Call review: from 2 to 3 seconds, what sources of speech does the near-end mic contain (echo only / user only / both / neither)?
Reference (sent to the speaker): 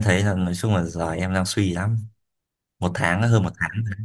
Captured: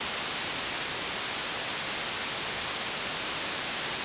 neither